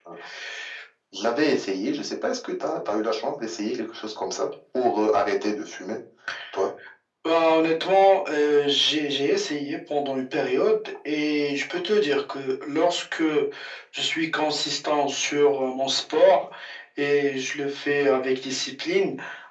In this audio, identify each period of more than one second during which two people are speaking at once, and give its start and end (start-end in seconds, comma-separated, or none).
none